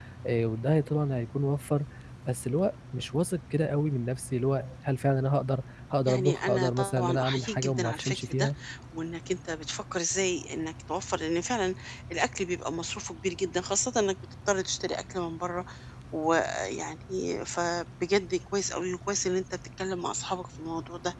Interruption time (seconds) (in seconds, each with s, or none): 6.1 s